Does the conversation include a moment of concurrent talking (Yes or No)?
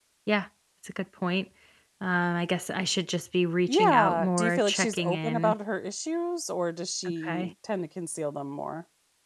Yes